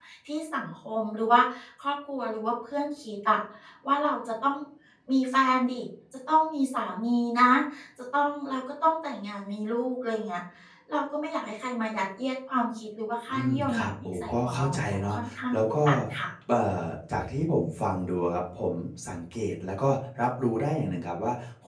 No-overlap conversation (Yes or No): No